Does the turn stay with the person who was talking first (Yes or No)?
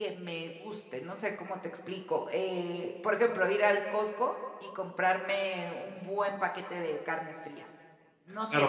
No